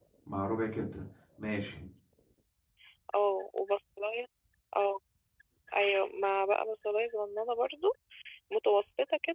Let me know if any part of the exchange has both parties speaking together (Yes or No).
No